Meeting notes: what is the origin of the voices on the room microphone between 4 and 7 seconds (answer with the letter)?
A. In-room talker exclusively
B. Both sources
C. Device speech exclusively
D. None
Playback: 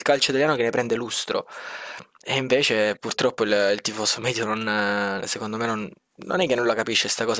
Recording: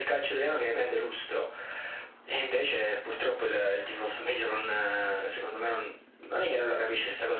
C